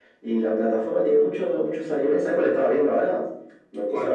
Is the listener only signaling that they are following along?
Yes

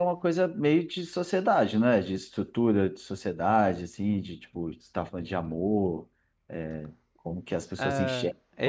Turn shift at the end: Yes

